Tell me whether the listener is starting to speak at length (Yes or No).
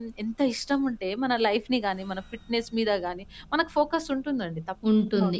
Yes